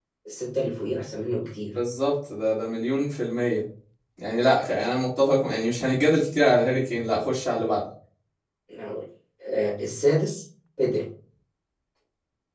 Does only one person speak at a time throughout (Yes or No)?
Yes